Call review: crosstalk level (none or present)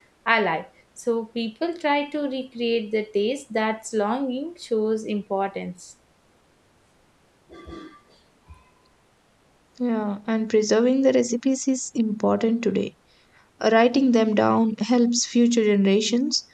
none